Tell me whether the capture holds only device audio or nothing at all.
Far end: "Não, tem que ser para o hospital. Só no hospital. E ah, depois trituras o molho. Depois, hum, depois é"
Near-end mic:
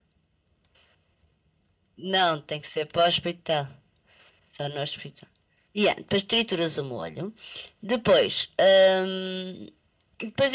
Yes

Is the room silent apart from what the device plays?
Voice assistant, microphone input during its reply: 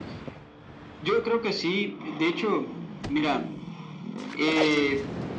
Yes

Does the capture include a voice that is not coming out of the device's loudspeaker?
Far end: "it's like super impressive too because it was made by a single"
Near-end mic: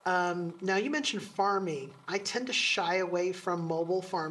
Yes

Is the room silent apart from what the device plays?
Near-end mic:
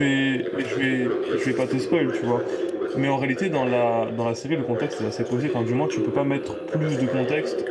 No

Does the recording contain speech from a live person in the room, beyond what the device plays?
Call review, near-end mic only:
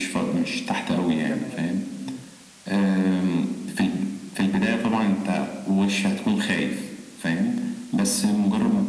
Yes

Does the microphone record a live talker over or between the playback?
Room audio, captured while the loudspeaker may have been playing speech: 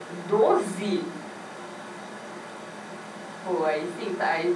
No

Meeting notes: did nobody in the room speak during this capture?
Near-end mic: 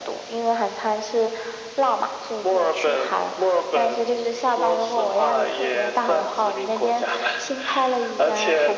Yes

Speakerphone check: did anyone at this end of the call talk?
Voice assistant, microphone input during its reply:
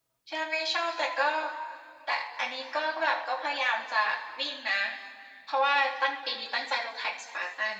No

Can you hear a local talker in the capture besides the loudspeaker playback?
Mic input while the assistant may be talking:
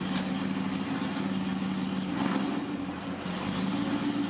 No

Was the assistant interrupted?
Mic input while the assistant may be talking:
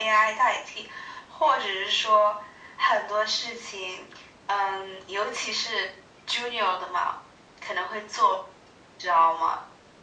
No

